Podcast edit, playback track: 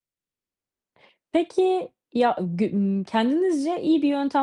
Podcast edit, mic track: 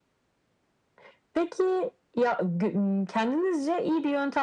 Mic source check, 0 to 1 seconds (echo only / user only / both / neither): neither